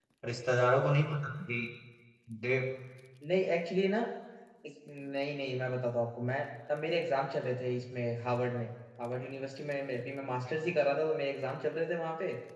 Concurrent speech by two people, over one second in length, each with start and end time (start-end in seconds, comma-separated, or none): none